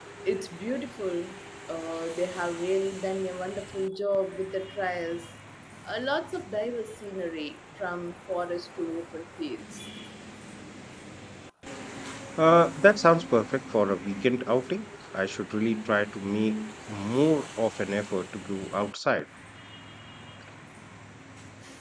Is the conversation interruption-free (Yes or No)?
Yes